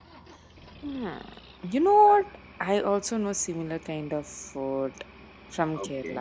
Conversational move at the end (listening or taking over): taking over